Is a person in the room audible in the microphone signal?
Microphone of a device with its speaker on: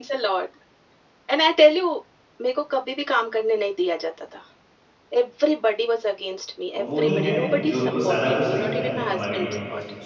Yes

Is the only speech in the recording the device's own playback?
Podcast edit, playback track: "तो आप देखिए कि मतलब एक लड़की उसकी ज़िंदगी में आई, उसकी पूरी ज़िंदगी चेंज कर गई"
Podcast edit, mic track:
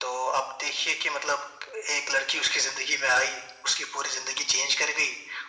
Yes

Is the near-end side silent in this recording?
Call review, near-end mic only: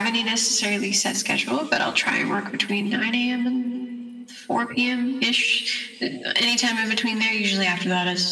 Yes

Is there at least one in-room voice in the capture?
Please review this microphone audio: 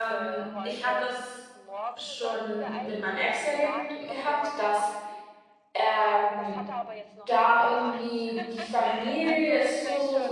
Yes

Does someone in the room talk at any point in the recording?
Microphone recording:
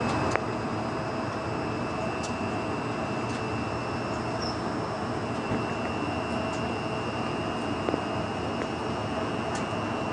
No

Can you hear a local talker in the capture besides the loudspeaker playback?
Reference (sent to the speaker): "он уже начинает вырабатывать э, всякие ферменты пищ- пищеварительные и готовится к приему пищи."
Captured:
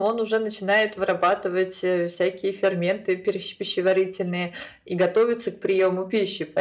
No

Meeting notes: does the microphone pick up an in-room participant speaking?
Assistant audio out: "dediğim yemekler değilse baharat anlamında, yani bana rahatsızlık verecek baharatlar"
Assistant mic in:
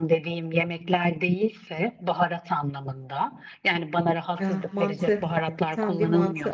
Yes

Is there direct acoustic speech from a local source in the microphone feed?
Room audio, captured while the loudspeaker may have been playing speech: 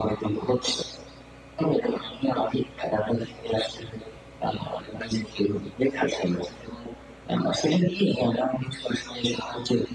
No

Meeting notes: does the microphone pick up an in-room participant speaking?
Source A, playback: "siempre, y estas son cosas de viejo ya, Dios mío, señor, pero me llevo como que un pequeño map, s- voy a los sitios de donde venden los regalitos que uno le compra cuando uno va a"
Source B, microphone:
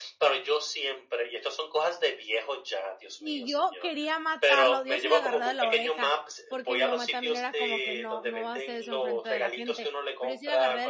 Yes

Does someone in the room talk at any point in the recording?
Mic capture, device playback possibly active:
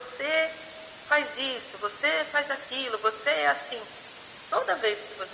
No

